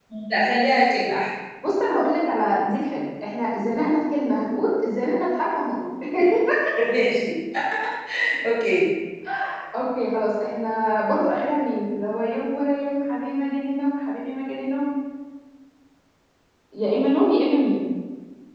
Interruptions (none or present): none